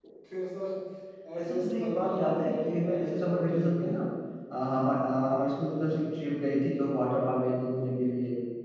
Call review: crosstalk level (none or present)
present